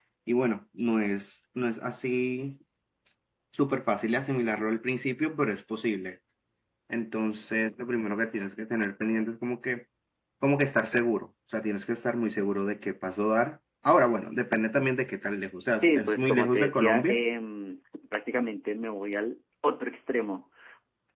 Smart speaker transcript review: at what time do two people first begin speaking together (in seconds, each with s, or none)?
15.7 s